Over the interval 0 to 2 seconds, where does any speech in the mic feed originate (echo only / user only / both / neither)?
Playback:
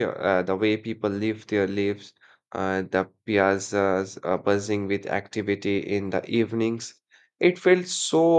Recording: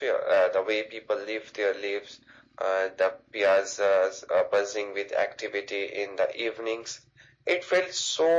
echo only